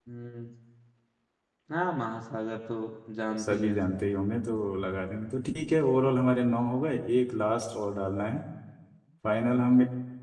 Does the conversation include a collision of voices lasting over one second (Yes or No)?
No